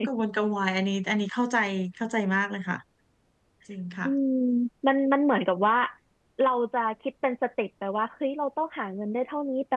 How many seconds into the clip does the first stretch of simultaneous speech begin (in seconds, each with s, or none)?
none